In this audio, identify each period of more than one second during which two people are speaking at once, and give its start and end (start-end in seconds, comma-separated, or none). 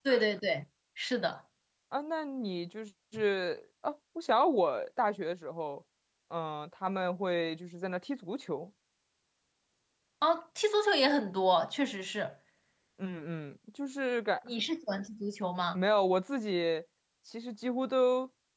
none